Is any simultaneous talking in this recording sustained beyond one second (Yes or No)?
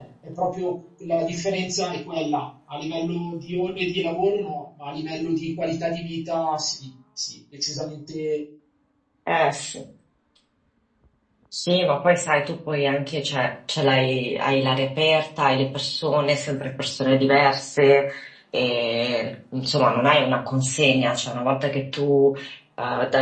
No